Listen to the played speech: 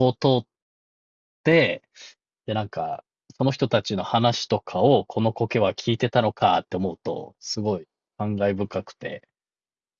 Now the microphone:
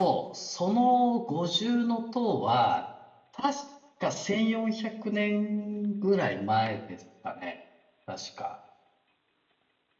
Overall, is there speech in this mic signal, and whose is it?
user only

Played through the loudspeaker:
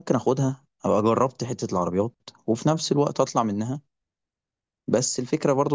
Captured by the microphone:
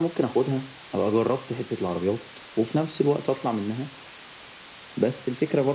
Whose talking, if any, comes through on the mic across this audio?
echo only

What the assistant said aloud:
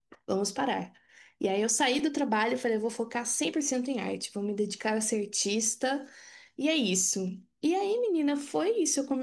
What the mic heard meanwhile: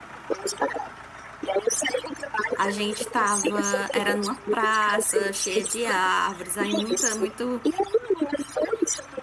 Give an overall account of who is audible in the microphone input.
both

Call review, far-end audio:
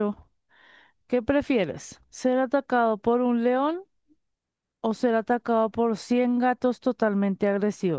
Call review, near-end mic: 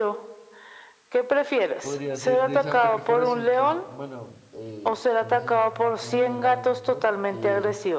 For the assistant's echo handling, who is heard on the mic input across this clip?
both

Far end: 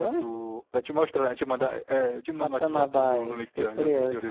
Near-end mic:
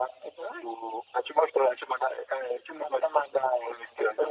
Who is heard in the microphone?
echo only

